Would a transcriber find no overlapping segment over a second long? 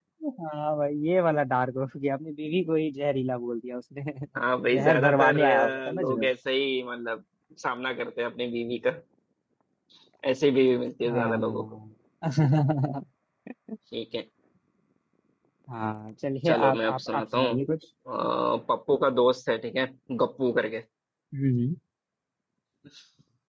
No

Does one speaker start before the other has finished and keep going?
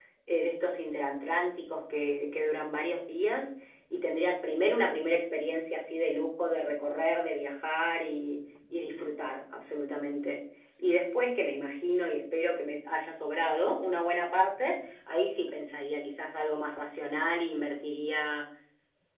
No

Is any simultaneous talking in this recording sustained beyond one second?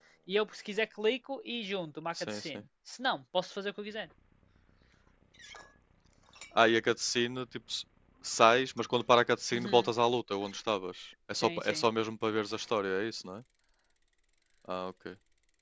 No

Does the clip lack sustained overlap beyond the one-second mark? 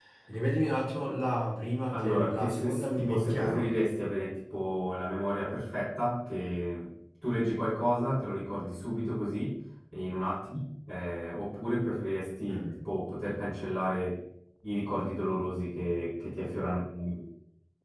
No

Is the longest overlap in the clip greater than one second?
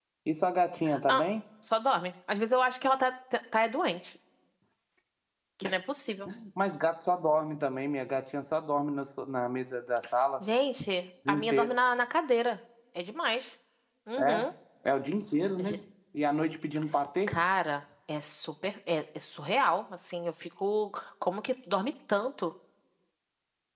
No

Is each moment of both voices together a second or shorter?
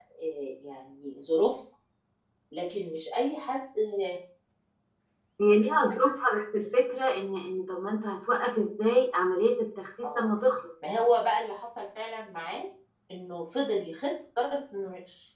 Yes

